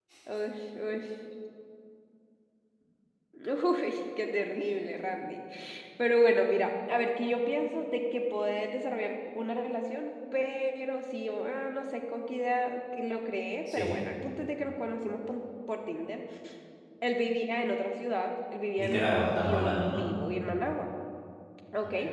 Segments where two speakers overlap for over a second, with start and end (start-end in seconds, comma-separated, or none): 18.8-20.0